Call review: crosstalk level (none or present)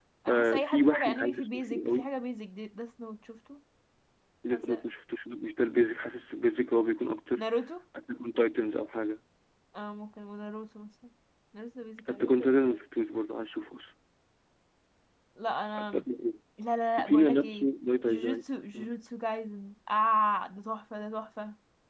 present